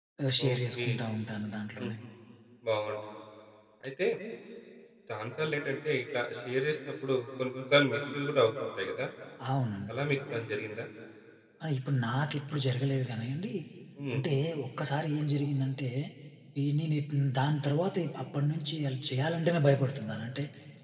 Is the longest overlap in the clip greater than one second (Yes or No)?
No